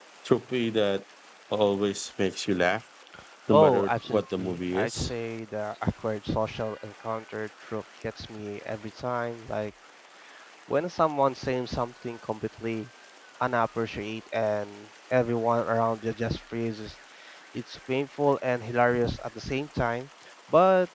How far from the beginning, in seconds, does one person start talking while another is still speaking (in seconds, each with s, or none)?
3.5 s